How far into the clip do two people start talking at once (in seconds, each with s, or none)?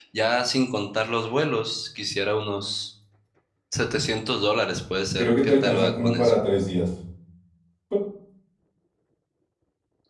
5.2 s